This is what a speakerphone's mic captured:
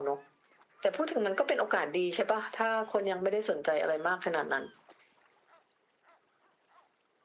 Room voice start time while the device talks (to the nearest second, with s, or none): none